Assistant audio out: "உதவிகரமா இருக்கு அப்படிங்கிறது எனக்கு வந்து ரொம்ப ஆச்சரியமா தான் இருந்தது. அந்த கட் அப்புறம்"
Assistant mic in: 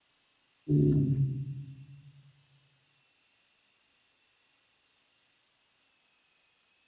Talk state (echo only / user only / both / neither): user only